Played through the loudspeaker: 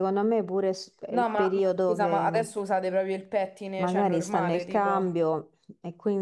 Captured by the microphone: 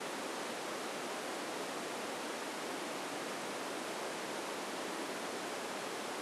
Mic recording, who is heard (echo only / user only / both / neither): neither